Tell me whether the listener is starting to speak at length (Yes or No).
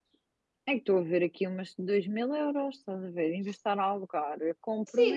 Yes